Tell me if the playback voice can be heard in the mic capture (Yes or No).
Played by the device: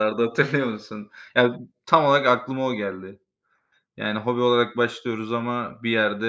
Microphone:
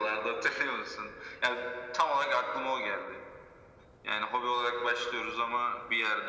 Yes